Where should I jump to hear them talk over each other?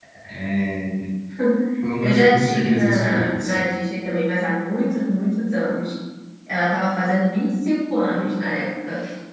2.0 s

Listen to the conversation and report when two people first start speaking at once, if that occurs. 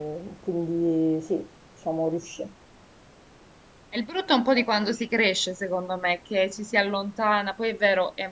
none

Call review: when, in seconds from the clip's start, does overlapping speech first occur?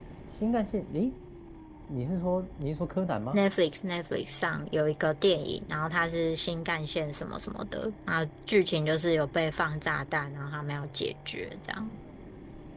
none

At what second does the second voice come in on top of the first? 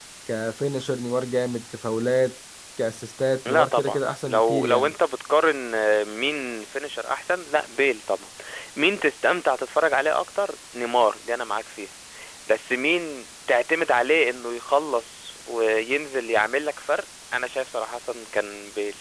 3.4 s

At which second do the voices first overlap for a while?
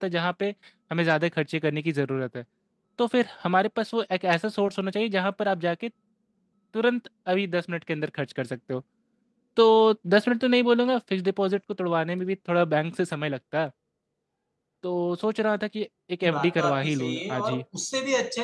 16.2 s

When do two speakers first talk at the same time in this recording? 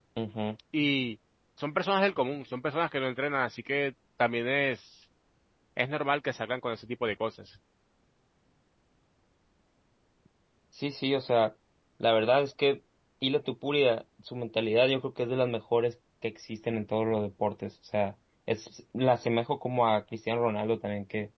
none

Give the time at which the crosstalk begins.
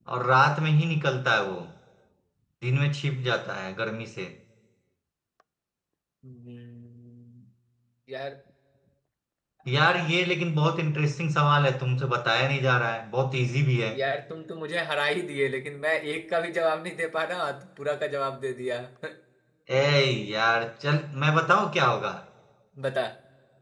none

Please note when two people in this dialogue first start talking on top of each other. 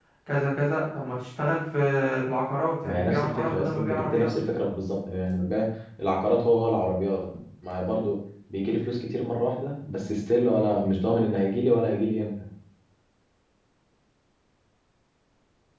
2.8 s

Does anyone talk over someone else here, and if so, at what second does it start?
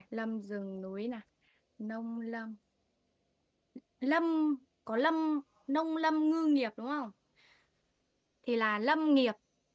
none

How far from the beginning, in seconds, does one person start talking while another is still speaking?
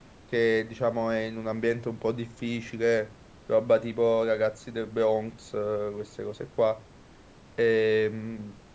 none

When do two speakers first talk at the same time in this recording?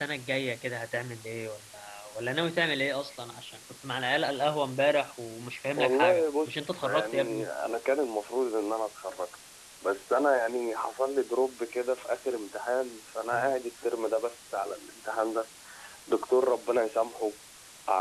5.8 s

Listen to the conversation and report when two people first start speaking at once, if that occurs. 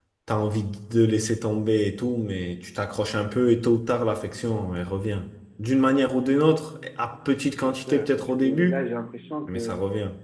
7.6 s

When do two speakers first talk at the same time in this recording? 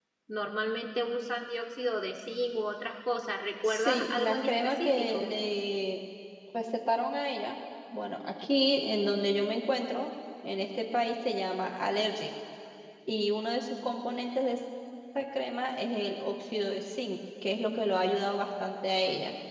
3.6 s

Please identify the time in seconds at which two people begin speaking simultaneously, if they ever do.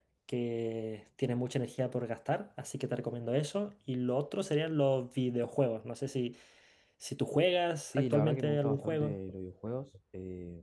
7.9 s

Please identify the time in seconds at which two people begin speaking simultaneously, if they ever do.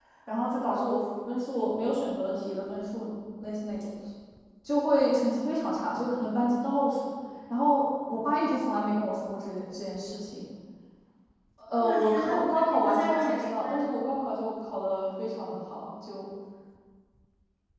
11.8 s

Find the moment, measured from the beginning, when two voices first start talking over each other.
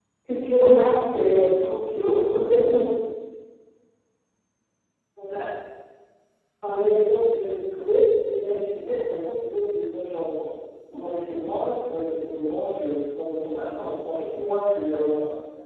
none

